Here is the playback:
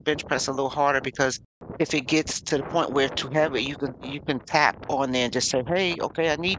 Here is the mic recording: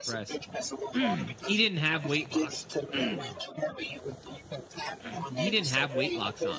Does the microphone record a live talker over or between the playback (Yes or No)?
Yes